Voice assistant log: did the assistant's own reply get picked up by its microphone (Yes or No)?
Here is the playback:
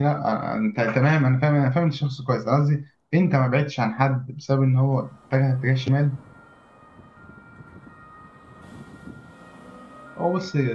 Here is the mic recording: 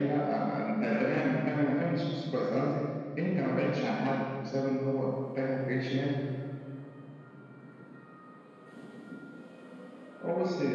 Yes